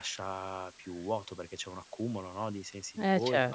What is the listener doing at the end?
taking over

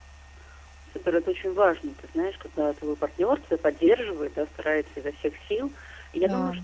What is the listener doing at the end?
listening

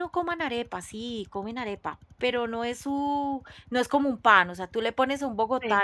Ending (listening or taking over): listening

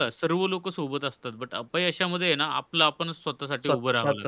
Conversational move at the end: taking over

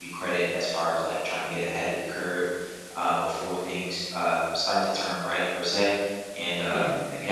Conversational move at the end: listening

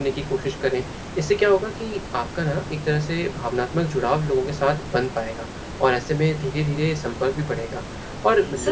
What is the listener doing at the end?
listening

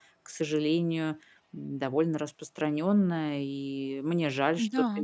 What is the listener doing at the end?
listening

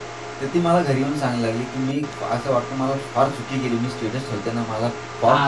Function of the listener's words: taking over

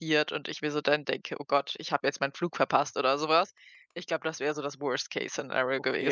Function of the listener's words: taking over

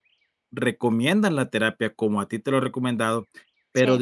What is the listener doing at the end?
listening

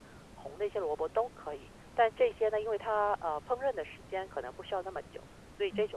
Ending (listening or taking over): listening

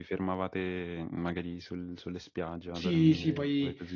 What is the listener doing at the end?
taking over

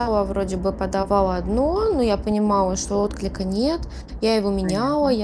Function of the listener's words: listening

